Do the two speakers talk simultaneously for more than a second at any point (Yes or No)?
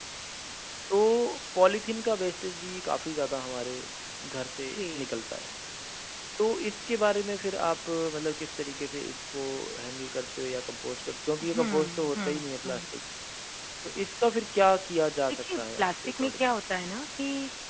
Yes